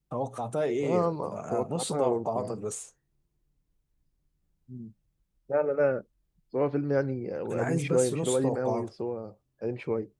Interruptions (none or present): present